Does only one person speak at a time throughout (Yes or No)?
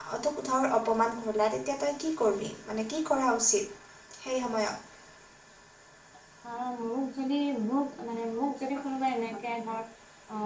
Yes